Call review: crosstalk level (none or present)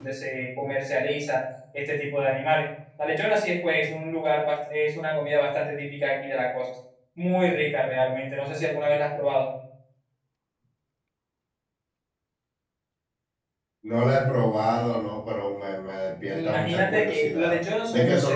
present